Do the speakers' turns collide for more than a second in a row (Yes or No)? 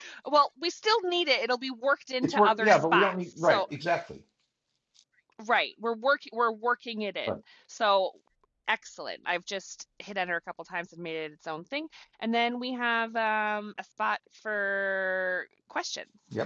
Yes